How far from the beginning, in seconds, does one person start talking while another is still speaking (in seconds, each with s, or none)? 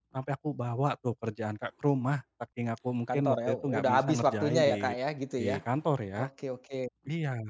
3.1 s